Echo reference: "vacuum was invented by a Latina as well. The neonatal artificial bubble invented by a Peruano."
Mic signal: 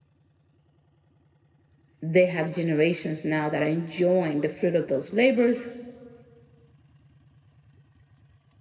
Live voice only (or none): They have generations now that are enjoying the fruit of those labors.